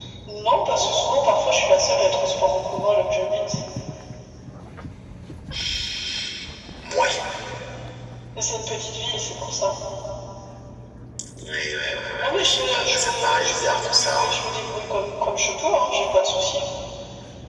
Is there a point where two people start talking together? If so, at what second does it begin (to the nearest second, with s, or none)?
12 s